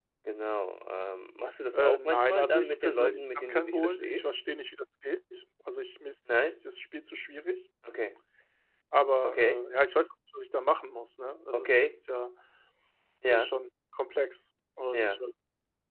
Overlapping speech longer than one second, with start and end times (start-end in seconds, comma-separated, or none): 1.7-4.3